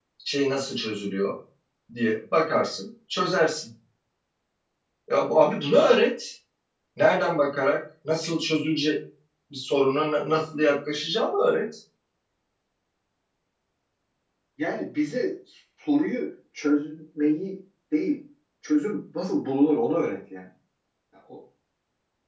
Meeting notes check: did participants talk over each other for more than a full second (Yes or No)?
No